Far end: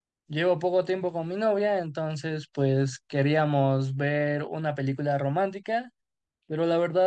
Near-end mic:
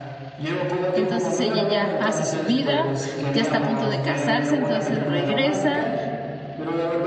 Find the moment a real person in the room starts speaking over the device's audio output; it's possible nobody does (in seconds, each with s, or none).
0.9 s